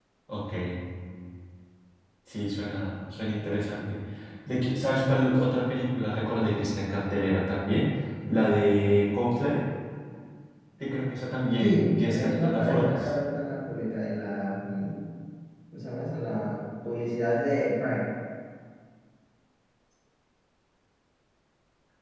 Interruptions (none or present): present